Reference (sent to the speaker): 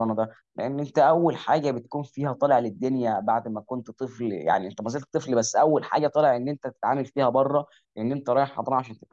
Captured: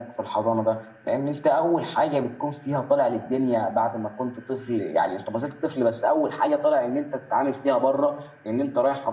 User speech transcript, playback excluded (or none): none